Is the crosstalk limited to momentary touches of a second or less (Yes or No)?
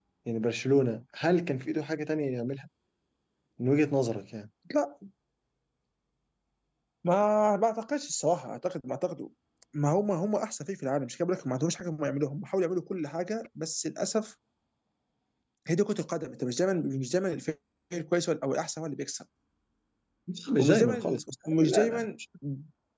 No